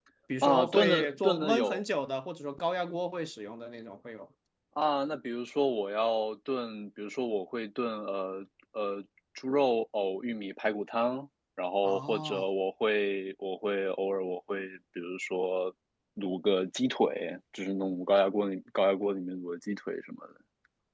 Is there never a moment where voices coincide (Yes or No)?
No